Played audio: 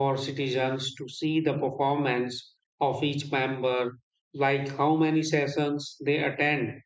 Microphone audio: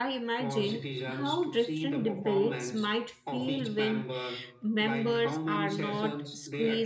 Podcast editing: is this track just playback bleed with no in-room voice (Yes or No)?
No